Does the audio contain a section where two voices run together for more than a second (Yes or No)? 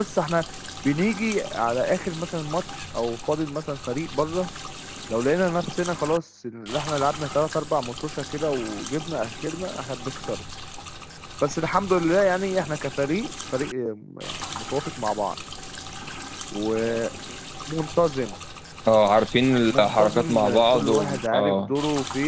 Yes